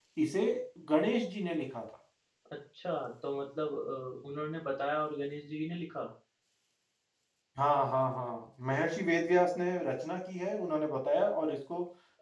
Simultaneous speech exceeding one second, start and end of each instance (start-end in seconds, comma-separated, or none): none